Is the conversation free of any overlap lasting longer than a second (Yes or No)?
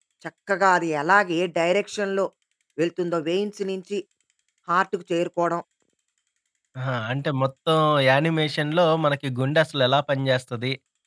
Yes